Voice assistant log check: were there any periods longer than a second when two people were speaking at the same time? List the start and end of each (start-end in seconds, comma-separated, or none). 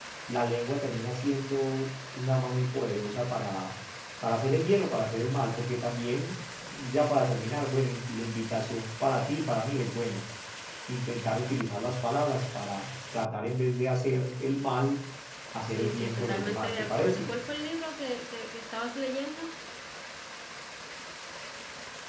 15.7-17.4